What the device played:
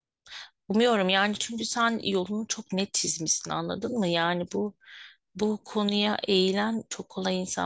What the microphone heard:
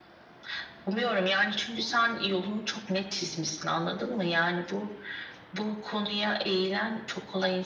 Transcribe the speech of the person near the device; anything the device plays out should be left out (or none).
none